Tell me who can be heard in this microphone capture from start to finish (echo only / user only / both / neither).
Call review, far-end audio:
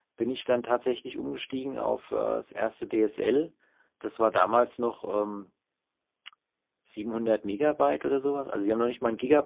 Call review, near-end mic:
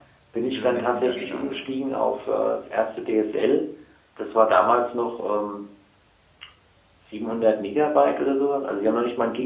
both